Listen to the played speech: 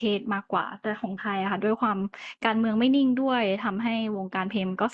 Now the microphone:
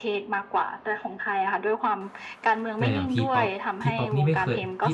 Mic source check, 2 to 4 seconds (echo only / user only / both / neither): both